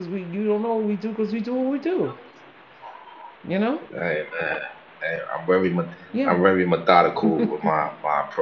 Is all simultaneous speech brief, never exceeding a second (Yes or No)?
Yes